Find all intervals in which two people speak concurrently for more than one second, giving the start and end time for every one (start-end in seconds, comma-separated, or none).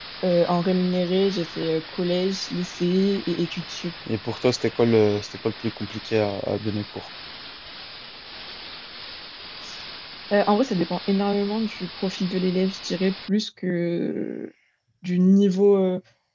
none